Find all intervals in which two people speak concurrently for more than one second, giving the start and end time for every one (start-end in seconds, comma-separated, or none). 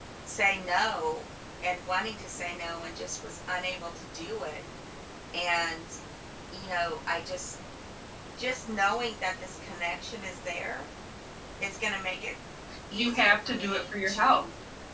12.9-14.4